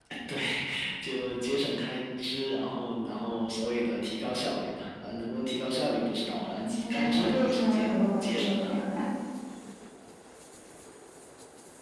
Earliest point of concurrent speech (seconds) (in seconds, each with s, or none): 6.6 s